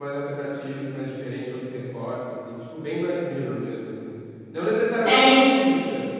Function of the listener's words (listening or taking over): listening